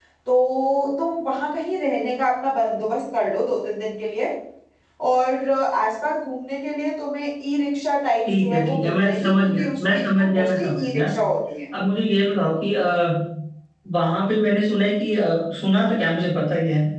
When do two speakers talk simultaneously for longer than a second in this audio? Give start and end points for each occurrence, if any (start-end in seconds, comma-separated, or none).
8.2-11.0